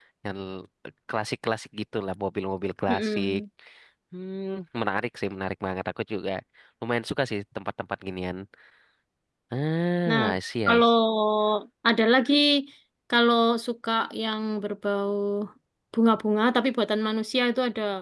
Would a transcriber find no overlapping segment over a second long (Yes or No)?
Yes